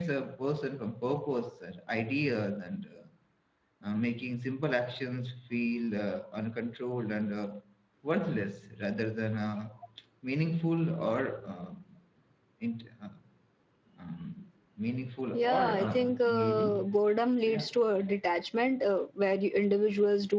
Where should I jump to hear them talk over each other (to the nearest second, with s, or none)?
15 s